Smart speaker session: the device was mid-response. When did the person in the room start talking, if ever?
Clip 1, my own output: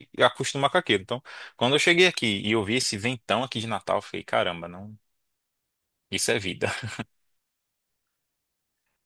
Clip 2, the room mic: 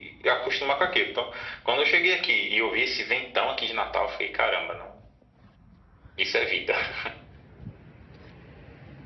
none

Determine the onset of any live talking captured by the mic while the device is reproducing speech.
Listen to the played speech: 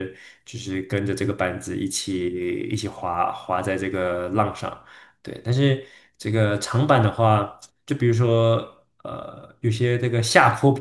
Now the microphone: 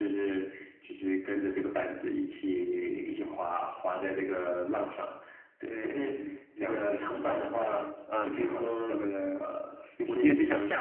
5.6 s

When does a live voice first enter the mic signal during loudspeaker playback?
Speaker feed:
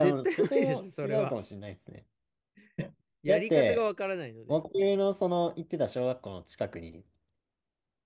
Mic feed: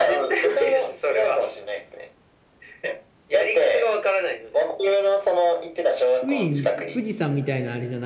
6.2 s

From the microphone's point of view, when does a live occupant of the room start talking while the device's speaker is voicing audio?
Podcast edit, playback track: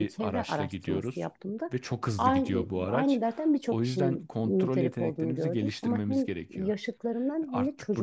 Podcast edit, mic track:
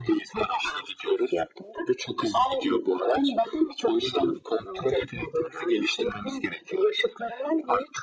none

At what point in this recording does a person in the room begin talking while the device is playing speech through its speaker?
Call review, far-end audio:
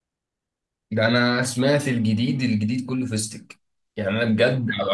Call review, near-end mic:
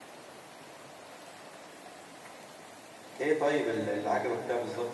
3.2 s

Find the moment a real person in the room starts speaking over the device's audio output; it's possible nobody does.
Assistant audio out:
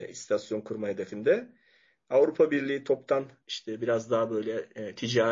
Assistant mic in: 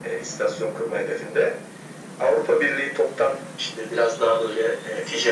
none

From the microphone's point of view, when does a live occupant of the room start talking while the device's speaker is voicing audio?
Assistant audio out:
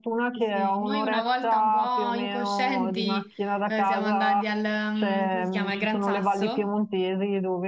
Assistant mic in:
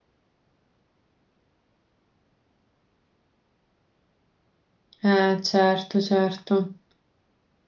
5.0 s

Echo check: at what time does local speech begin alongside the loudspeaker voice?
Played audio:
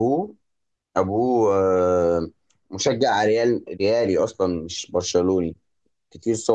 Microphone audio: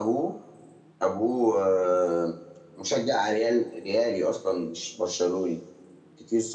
none

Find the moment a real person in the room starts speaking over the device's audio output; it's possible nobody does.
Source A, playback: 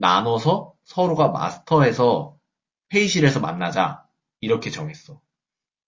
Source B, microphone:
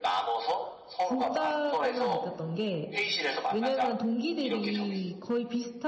1.0 s

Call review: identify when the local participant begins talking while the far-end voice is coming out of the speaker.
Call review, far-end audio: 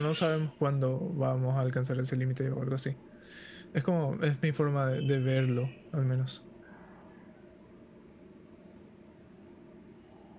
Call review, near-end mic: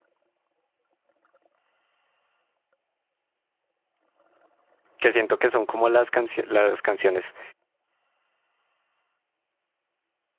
5.0 s

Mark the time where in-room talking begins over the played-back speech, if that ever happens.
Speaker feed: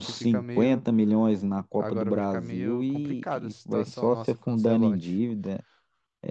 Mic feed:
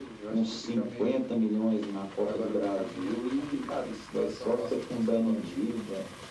none

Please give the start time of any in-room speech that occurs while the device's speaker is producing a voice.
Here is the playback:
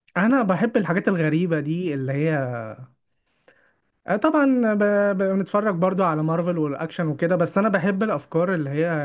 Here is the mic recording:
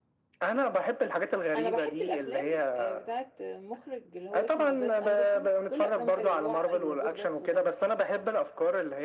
1.6 s

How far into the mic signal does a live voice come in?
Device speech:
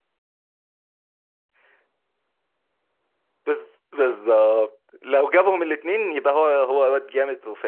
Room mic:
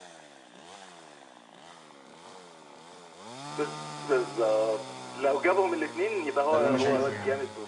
6.5 s

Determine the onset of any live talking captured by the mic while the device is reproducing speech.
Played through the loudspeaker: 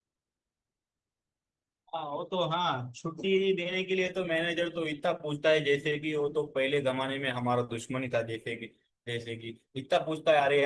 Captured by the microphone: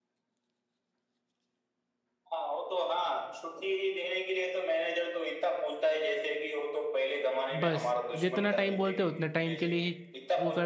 7.6 s

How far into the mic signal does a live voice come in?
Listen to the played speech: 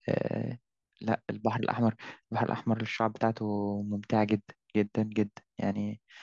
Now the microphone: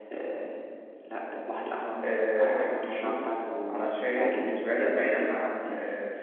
2.0 s

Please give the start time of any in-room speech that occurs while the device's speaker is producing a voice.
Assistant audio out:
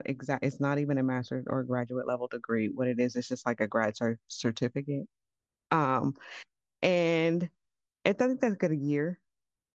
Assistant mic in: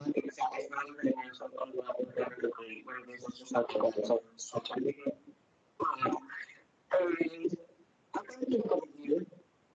none

